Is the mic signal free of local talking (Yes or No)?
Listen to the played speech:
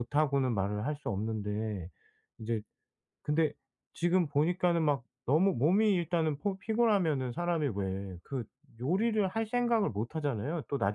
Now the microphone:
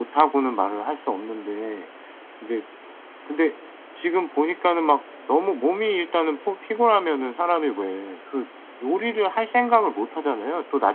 Yes